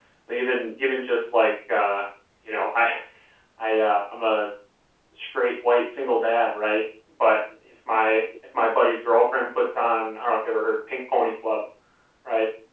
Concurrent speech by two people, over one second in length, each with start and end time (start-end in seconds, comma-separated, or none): none